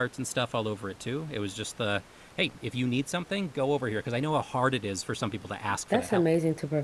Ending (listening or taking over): taking over